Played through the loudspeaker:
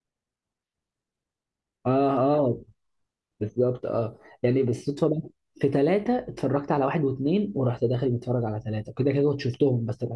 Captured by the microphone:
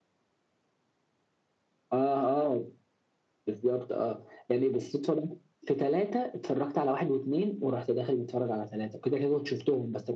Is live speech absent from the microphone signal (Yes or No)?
Yes